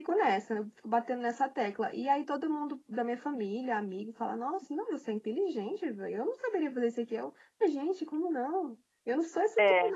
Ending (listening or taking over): listening